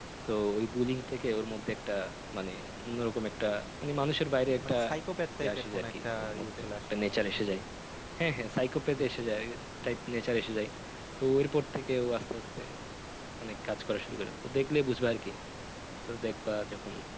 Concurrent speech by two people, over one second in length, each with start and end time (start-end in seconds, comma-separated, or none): 5.4-7.2